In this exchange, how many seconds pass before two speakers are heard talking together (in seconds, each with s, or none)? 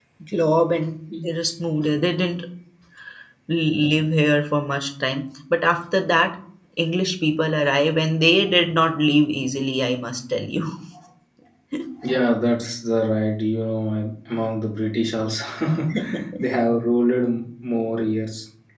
none